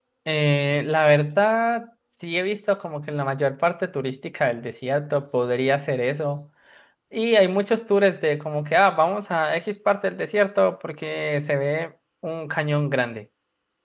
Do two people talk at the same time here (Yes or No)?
No